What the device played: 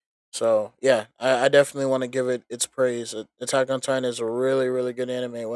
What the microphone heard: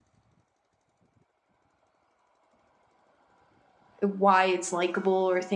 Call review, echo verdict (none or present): none